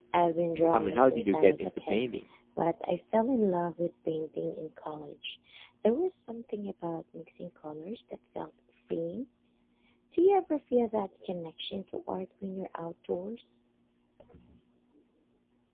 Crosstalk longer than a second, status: present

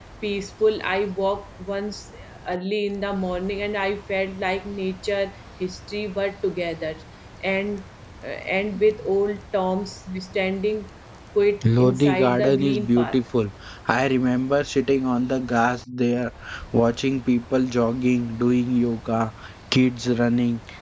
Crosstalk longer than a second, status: present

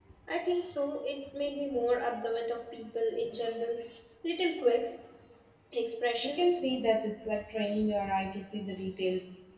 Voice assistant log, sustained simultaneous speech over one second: none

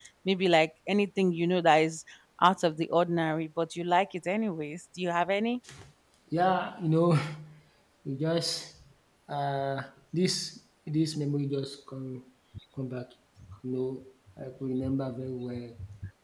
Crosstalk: none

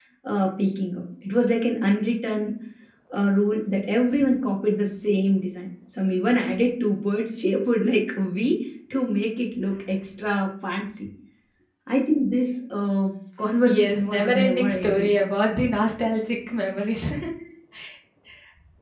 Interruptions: present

